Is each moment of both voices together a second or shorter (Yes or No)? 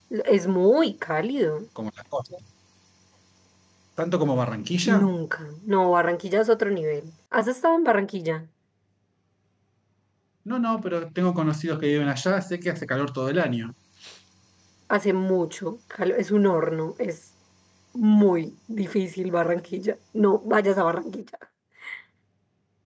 Yes